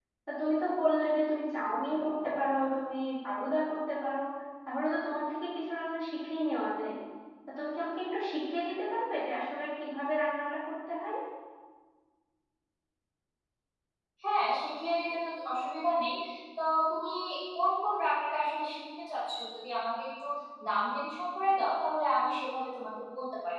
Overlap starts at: none

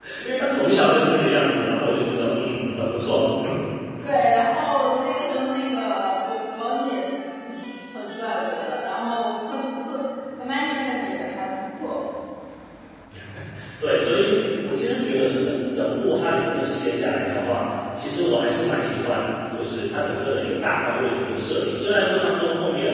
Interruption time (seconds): none

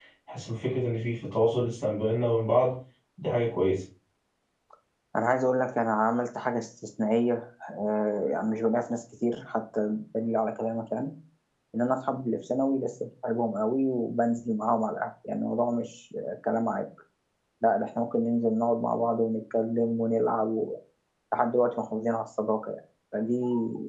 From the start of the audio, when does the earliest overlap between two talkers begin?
none

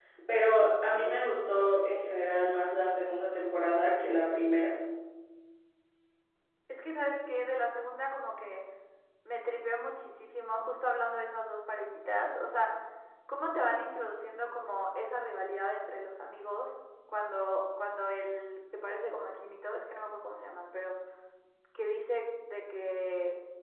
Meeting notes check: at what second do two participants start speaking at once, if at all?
none

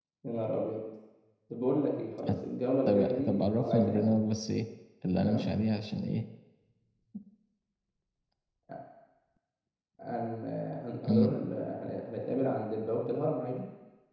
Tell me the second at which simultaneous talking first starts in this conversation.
3 s

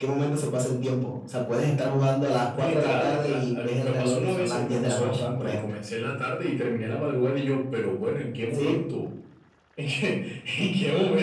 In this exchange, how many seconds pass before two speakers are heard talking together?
3 s

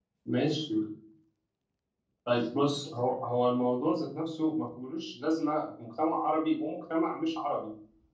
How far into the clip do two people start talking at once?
none

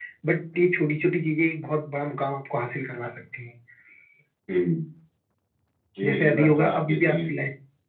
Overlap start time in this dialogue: 6 s

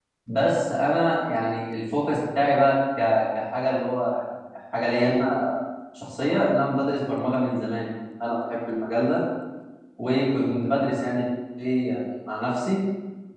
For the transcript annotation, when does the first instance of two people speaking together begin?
none

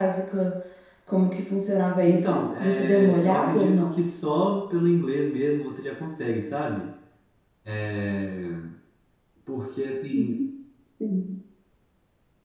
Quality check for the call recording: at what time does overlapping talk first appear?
2 s

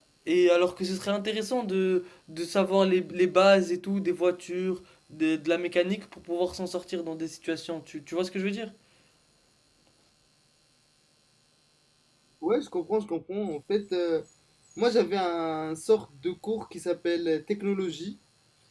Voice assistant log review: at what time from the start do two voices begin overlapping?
none

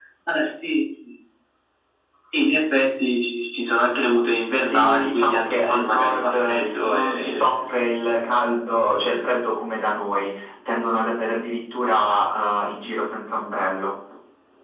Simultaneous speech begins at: 5 s

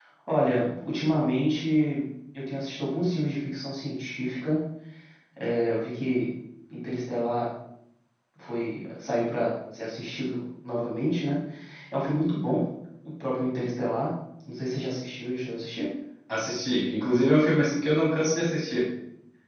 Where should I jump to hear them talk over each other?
none

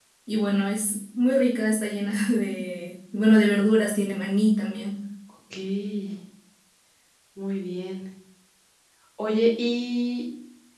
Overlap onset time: none

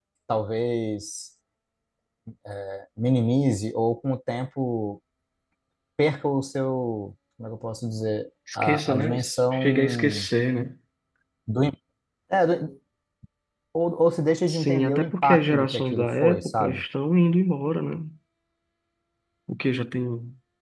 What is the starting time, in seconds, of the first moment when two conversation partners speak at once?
9 s

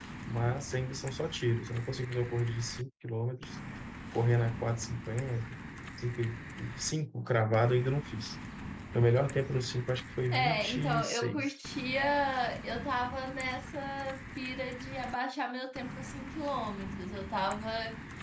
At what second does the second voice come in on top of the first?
10 s

